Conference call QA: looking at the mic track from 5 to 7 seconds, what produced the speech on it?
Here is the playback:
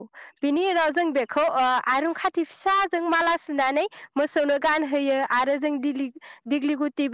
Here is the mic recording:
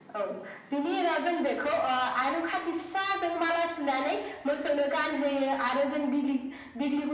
echo only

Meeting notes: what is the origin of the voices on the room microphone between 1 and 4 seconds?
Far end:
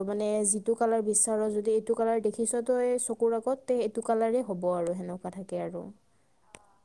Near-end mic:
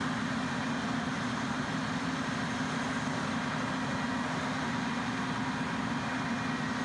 neither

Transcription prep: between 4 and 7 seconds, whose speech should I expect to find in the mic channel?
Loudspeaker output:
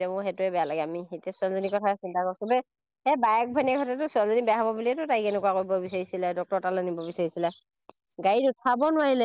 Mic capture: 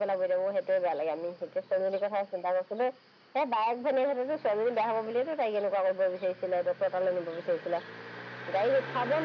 echo only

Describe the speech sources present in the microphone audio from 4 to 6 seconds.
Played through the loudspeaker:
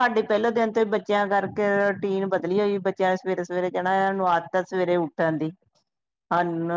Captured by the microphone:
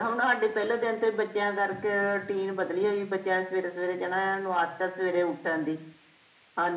echo only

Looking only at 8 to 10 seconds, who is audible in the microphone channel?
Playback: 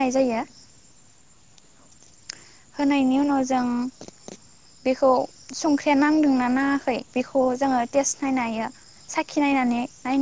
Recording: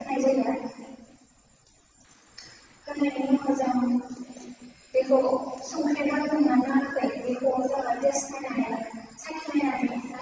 echo only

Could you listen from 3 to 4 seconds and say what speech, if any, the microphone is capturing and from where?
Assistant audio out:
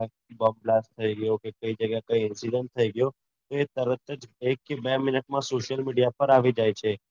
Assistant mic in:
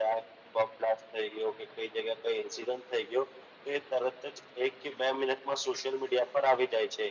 echo only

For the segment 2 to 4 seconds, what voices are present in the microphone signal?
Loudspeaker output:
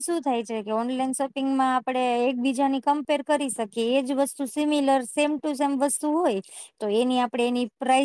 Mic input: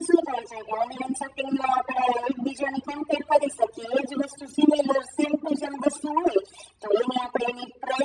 echo only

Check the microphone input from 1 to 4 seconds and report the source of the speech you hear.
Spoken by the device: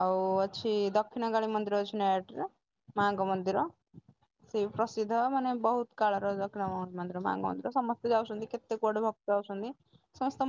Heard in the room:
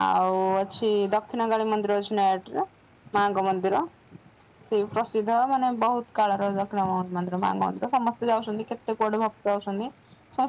echo only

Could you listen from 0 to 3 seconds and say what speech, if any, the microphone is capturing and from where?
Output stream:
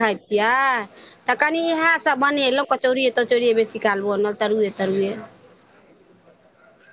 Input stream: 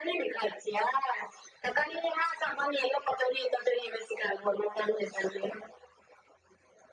echo only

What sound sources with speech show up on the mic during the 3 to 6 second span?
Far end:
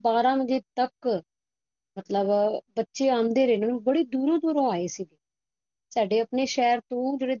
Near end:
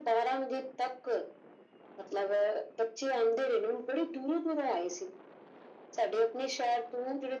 echo only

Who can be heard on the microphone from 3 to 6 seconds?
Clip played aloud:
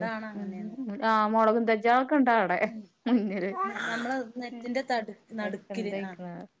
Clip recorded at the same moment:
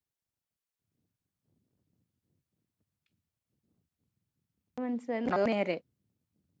user only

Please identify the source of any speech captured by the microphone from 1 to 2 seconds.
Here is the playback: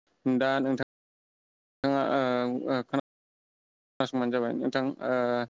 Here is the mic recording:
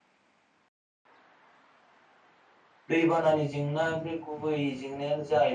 neither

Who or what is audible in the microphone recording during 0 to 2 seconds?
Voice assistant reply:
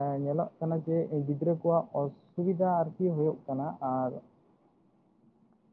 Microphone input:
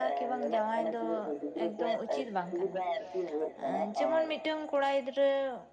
both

